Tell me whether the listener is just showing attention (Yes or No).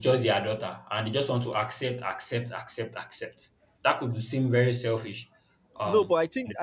No